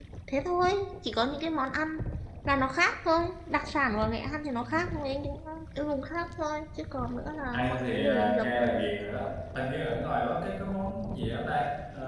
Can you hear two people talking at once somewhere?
Yes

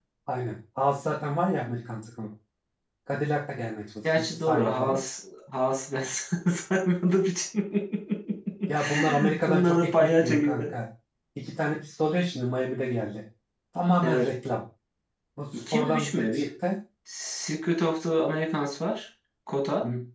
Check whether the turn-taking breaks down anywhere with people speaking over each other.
Yes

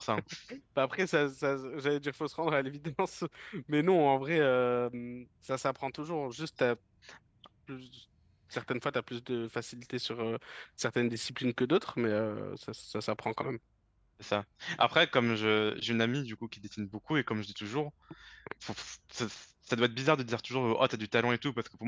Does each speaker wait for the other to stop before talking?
Yes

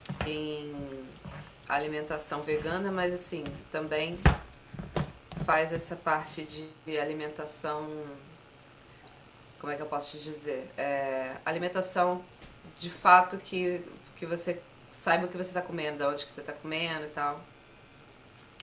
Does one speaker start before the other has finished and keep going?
No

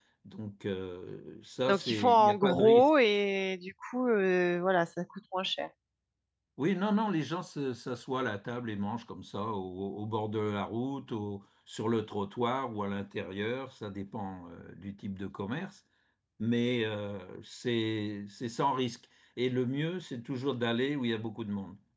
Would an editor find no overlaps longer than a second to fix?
No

